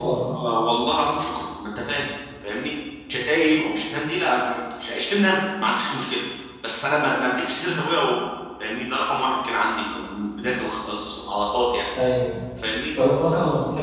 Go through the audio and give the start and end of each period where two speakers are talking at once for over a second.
none

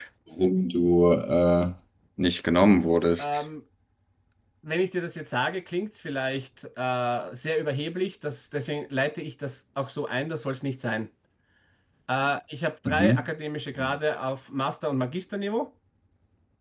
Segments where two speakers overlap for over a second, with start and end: none

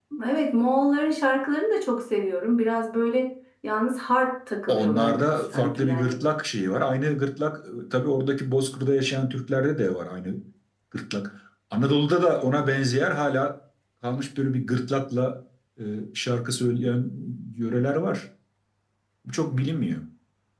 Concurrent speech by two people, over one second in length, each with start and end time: 4.7-6.2

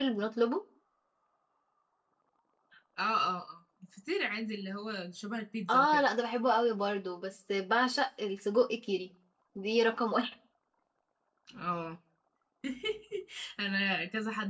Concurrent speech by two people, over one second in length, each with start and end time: none

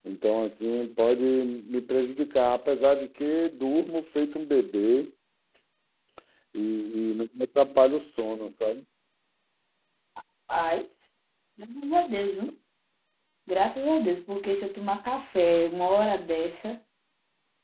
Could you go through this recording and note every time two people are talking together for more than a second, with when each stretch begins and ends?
none

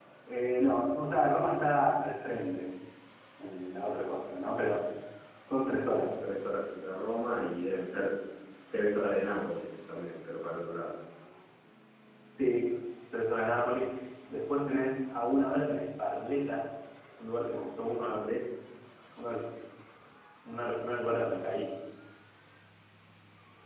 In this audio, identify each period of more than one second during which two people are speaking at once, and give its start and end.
none

